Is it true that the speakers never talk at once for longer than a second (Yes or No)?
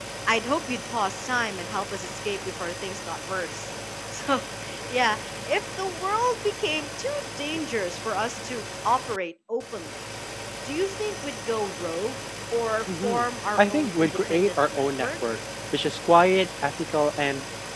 No